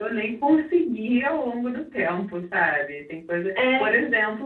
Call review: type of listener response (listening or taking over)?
listening